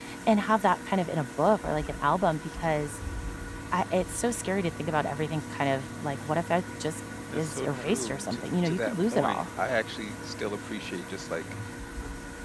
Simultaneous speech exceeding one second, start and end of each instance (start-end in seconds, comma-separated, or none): 7.3-9.5